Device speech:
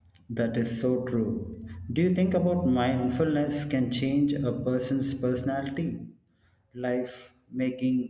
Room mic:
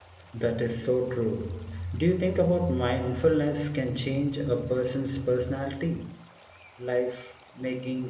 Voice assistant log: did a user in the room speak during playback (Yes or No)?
No